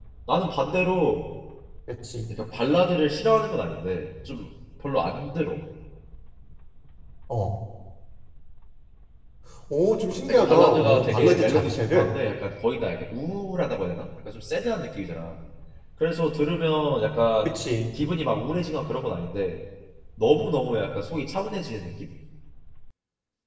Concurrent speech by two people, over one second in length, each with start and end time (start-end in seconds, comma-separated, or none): 10.3-12.1